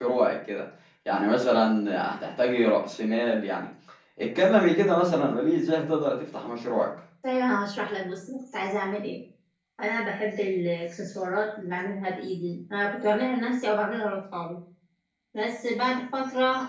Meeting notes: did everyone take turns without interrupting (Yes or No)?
Yes